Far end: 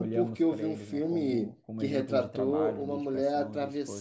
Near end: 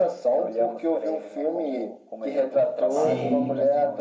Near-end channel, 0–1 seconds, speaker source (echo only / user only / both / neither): echo only